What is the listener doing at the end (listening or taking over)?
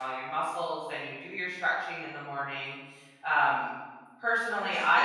listening